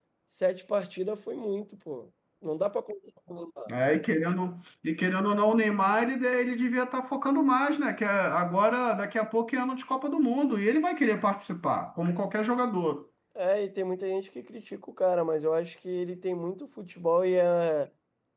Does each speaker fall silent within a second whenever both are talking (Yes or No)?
Yes